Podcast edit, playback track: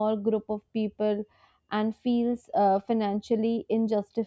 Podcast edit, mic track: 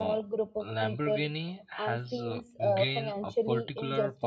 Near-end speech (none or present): present